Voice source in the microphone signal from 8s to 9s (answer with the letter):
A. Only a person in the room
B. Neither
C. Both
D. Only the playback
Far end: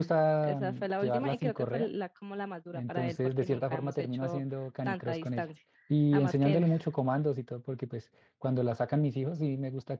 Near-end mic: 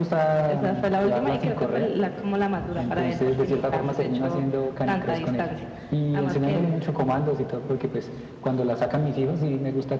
D